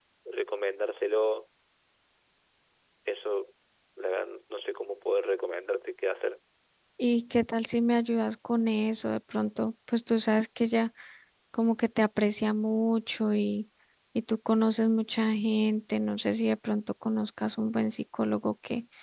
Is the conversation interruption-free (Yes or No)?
Yes